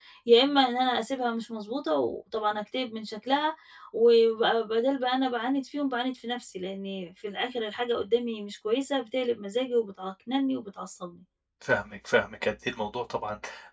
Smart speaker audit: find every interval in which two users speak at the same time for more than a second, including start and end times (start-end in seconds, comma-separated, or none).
none